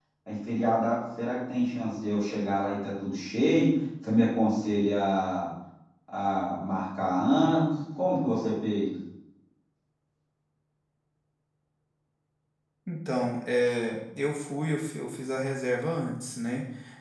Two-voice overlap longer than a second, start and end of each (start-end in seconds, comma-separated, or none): none